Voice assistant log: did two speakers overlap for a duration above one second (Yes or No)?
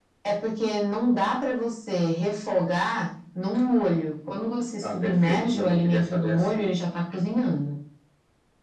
Yes